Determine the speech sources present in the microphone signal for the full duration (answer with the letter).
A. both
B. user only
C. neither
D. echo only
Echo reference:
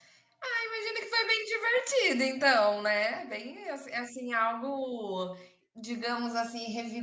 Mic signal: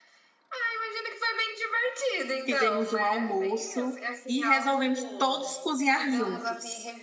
A